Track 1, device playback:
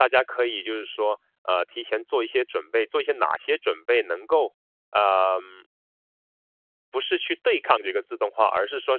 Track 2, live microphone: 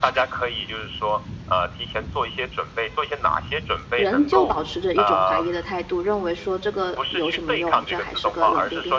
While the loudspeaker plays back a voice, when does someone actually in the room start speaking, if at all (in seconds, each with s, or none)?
3.9 s